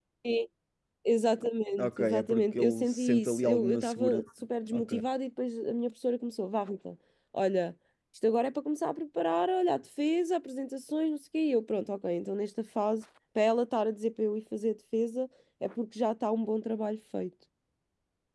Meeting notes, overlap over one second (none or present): present